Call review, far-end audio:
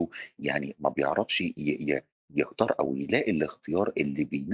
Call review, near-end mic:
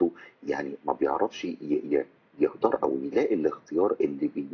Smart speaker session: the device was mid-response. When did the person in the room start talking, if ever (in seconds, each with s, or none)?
none